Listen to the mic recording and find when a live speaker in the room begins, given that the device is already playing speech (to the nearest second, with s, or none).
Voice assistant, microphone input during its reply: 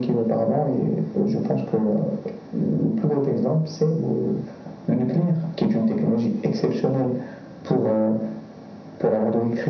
none